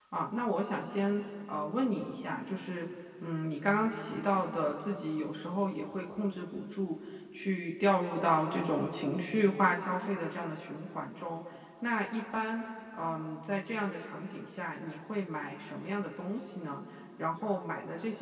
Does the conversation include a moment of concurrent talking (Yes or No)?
No